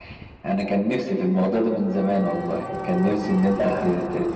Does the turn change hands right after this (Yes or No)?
No